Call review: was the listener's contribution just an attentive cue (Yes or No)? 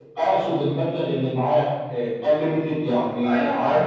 No